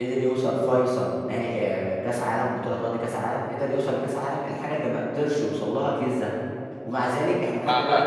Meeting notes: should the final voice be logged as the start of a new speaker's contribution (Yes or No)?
Yes